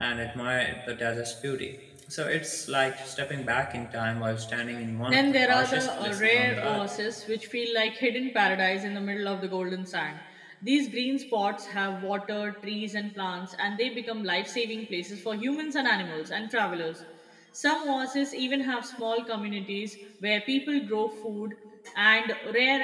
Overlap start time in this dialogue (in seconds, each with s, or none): 5.1 s